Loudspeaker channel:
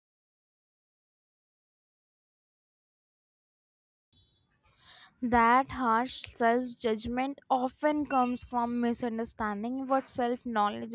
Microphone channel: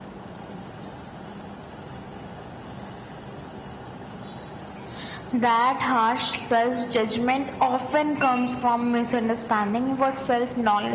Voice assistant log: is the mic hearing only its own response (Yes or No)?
Yes